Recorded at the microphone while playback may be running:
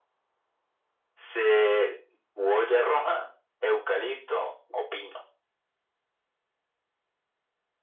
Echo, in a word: present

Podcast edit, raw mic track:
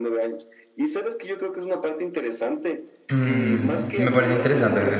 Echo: present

